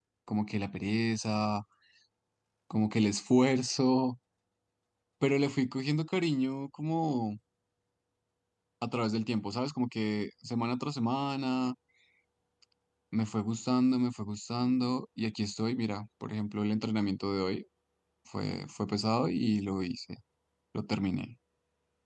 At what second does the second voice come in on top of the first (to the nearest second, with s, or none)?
none